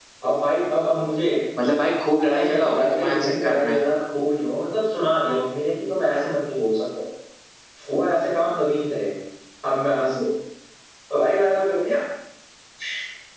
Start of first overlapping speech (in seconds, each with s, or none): 2.2 s